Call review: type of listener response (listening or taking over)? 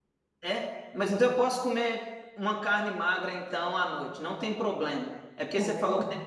listening